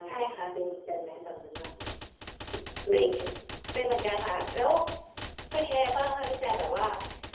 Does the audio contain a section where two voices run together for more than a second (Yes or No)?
No